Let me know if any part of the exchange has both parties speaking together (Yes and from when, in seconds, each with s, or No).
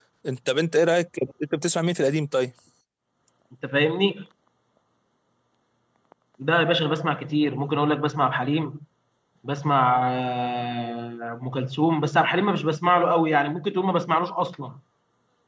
No